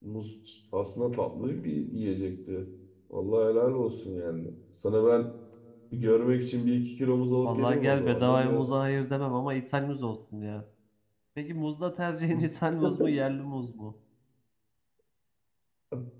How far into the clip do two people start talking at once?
7 s

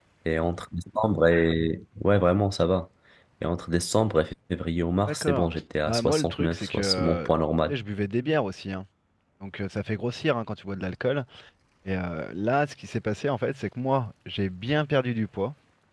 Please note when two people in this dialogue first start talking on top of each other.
5 s

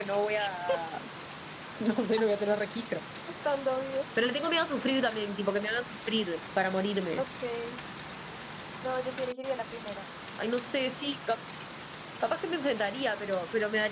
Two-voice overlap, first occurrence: none

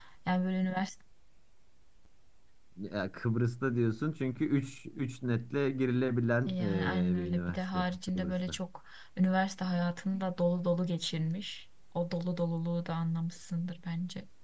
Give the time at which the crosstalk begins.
6 s

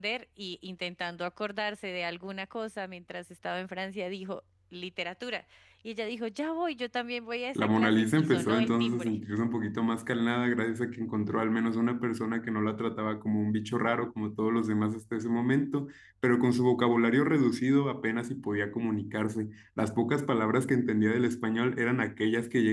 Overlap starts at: 8 s

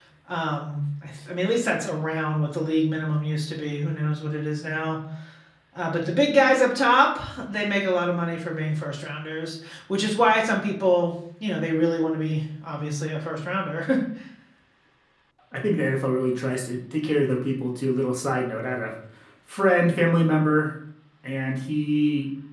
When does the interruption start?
none

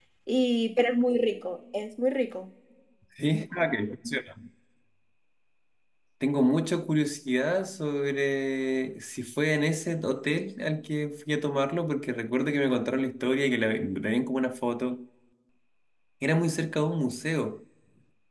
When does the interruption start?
none

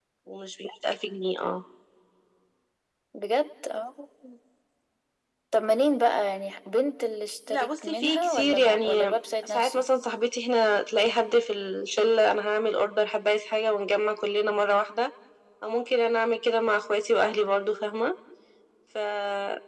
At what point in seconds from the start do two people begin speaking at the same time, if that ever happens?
7 s

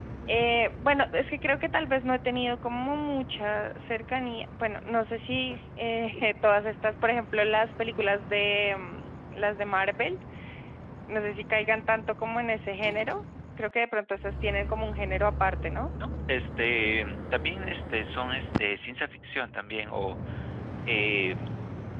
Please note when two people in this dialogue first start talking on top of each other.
none

